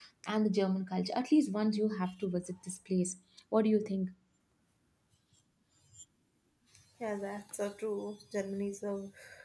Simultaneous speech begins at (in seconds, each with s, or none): none